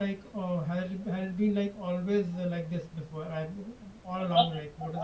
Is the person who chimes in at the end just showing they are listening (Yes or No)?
No